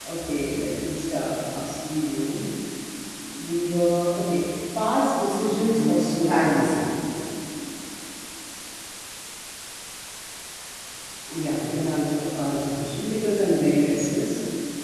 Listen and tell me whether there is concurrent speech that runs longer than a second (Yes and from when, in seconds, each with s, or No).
Yes, from 5.5 s